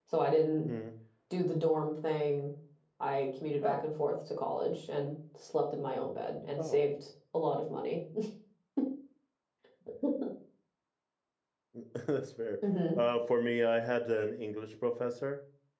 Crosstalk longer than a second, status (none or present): none